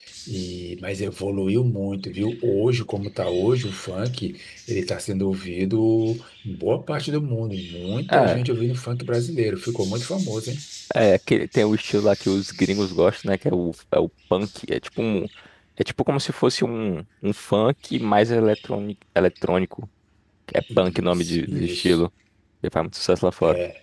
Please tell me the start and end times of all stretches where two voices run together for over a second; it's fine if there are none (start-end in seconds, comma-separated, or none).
20.8-22.0